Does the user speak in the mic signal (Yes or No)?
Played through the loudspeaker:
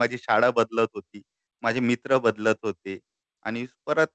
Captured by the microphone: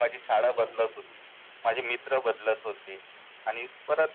Yes